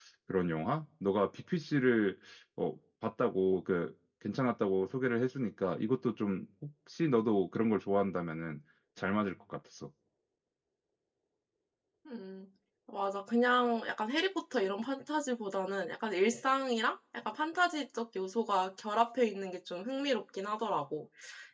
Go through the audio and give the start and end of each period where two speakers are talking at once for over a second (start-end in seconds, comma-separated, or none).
none